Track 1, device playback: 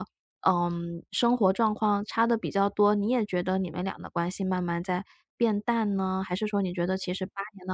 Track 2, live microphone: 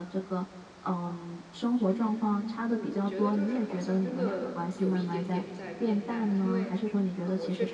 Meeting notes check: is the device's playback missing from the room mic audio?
No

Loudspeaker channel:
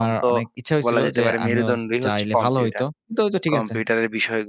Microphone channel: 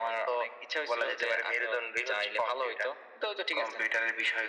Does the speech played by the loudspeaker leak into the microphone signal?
Yes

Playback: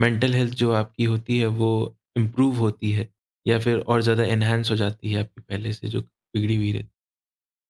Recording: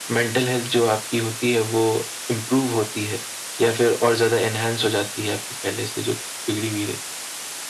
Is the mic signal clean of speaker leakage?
No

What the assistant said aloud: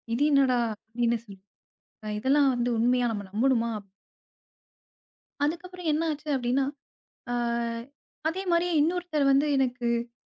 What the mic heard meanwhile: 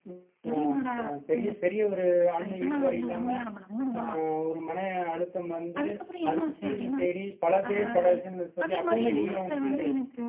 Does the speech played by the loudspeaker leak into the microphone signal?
Yes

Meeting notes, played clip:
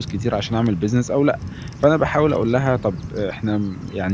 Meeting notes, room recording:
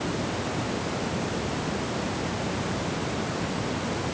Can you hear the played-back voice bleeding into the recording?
No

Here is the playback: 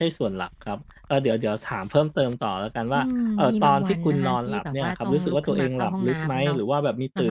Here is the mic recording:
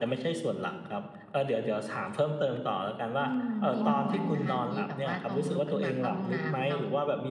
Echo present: Yes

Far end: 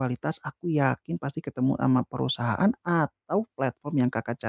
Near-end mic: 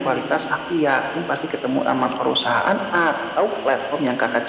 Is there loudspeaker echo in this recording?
Yes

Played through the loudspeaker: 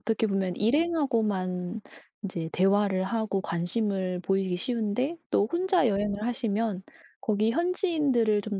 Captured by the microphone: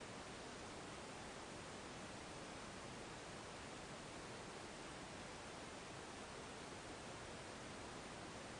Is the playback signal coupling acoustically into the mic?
No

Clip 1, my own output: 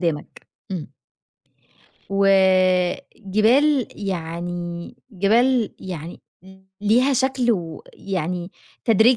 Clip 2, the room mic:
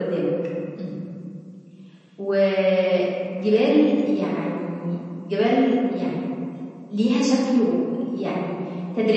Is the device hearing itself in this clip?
Yes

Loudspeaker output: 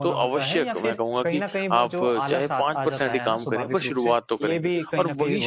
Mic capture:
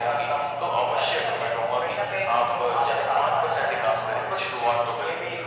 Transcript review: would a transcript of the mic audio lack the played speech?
No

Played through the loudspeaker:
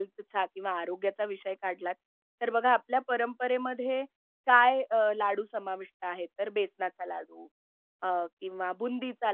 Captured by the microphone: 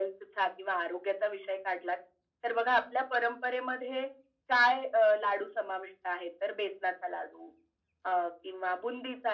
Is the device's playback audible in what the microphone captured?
Yes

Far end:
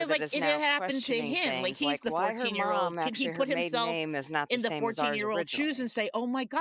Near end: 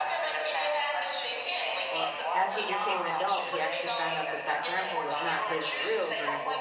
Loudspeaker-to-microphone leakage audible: Yes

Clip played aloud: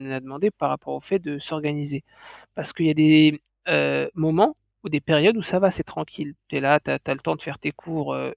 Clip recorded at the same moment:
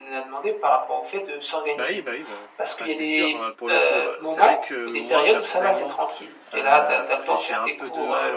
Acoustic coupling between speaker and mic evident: Yes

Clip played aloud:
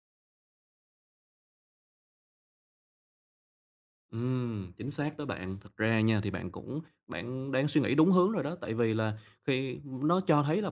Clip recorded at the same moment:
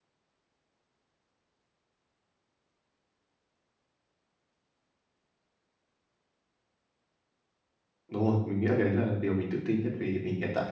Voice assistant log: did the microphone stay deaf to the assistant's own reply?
Yes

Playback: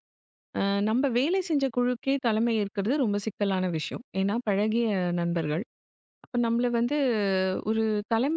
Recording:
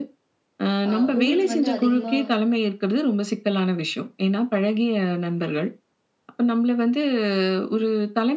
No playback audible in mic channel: No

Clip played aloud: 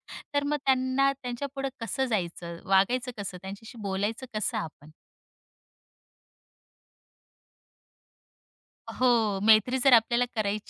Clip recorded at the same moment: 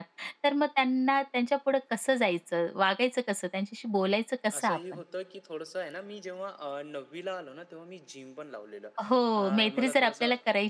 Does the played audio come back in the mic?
Yes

